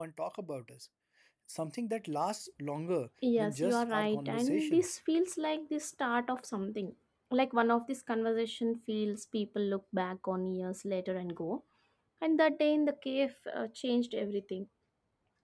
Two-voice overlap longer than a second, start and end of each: 3.4-5.0

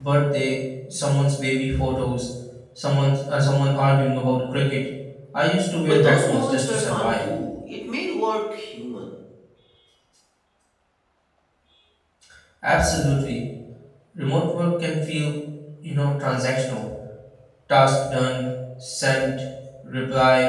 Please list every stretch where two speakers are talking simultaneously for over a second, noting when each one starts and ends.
5.8-7.2

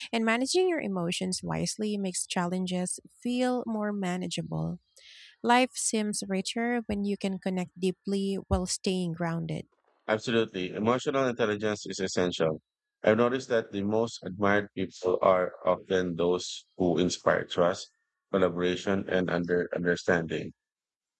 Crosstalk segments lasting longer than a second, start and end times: none

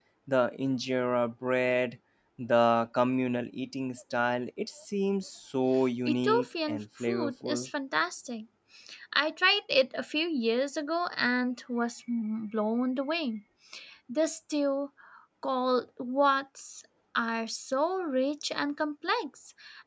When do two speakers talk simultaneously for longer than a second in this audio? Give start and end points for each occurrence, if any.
6.0-7.7

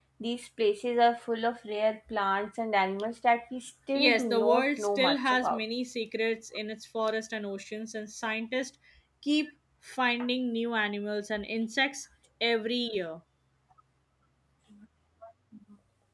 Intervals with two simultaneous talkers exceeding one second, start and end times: 4.0-5.6

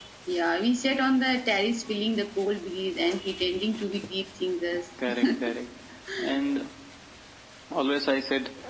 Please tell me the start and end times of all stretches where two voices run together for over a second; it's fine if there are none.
none

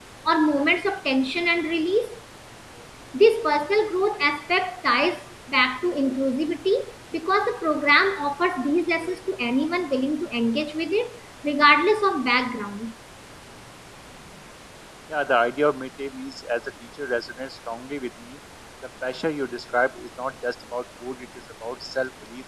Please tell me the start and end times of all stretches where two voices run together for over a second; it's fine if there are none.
none

